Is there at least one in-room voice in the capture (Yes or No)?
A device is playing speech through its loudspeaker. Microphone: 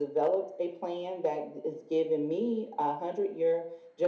No